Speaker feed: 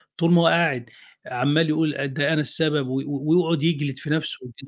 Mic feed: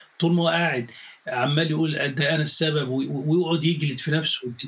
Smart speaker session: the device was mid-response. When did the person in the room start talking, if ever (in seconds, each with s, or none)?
none